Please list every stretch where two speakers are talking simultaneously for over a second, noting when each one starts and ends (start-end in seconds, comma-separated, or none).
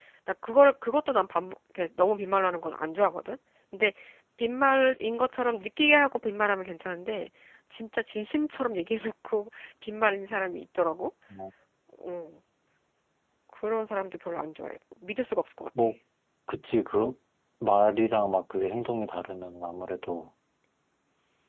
none